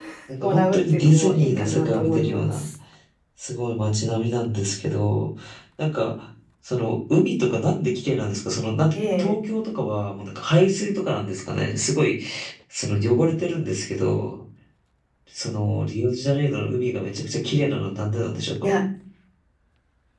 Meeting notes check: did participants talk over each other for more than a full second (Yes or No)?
Yes